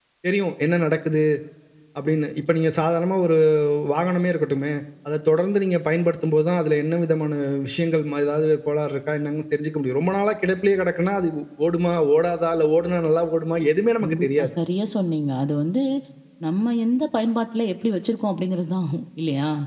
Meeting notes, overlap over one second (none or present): none